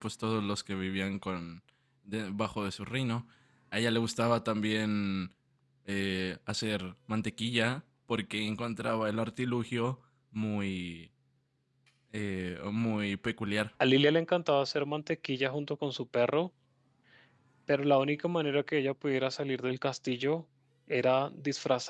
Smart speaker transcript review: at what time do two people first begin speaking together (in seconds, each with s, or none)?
none